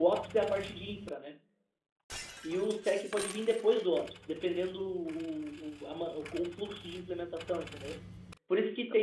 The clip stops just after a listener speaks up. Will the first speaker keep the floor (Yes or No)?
Yes